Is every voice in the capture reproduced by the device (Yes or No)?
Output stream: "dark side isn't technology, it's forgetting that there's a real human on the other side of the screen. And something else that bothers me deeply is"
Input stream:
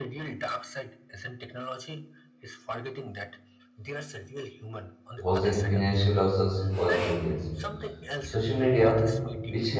No